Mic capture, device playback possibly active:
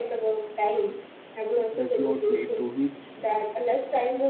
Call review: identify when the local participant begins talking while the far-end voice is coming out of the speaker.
1.7 s

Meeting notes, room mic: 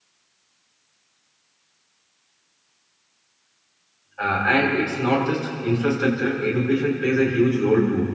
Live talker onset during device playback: 4.2 s

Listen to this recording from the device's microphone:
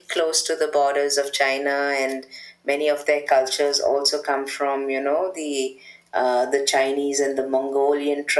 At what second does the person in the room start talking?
none

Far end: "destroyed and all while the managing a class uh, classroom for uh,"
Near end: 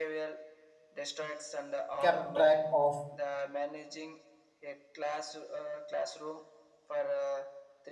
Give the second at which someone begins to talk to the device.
2.0 s

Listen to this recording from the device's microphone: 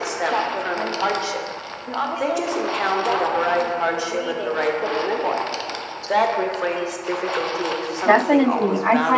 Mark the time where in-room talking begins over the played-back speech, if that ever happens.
8.1 s

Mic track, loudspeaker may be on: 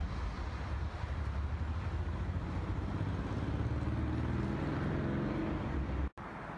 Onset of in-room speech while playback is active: none

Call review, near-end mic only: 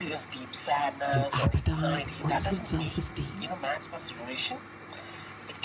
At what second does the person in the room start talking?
1.1 s

